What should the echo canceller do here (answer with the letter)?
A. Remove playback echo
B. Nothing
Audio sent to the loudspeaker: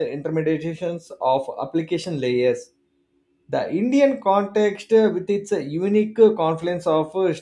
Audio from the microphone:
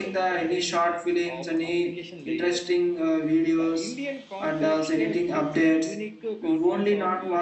A